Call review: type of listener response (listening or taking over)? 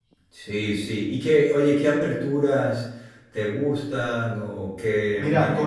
taking over